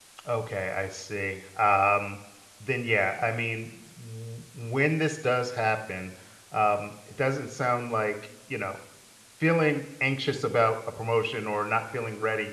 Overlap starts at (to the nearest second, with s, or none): none